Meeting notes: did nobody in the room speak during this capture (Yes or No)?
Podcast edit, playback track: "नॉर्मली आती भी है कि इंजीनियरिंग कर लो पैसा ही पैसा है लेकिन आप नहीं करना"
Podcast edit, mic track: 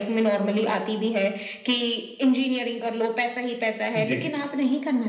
No